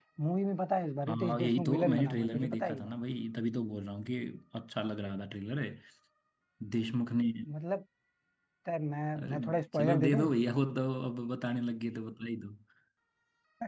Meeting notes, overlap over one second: present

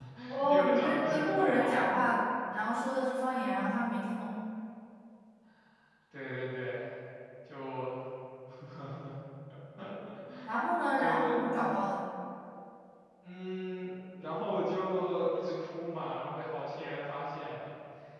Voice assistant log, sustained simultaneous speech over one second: present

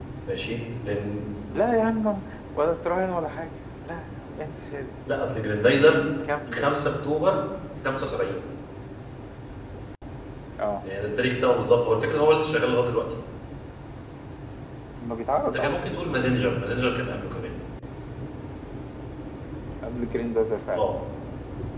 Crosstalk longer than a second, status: none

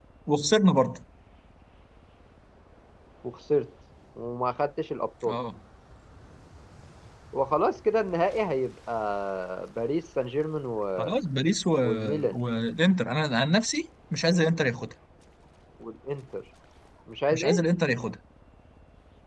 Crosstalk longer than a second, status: none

